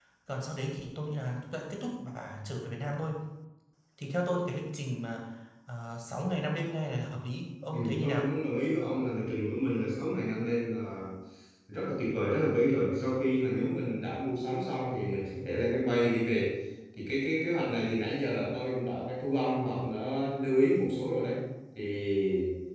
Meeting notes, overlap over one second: none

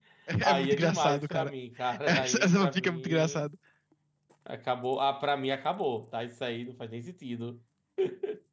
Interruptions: present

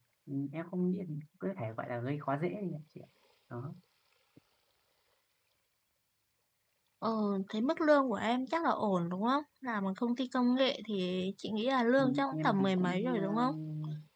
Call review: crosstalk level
present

